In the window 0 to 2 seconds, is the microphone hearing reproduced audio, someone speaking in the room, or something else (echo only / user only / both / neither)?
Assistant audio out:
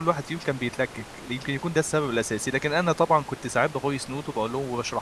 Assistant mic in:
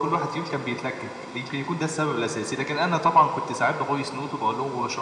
echo only